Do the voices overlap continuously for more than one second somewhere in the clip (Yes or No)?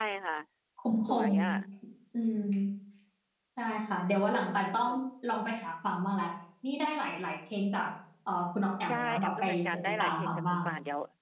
Yes